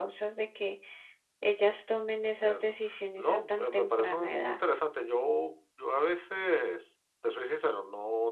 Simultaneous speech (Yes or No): Yes